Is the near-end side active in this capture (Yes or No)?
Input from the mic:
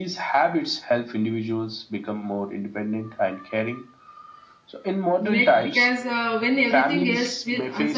Yes